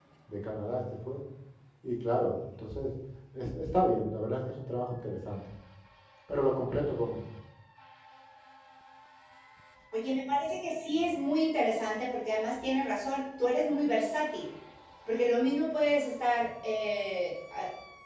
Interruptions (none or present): none